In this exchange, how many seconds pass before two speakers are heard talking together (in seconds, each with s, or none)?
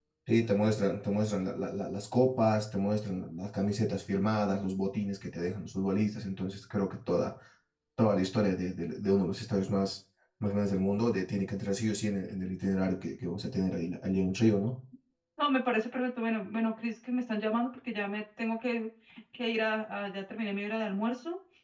none